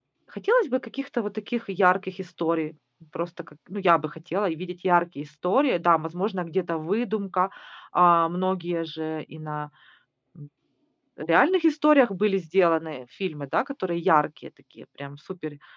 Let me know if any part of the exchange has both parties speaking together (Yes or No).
No